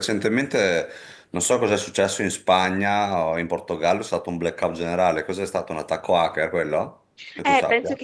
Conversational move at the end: taking over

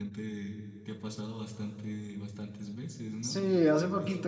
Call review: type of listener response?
taking over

